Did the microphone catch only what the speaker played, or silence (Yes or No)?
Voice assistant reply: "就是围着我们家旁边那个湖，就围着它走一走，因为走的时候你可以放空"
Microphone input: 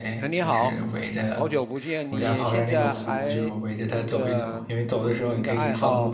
No